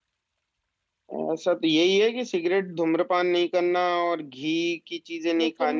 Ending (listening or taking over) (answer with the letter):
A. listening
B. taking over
A